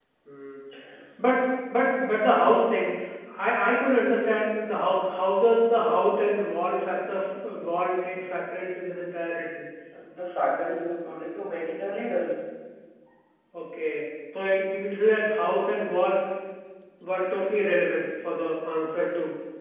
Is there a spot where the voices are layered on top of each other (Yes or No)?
No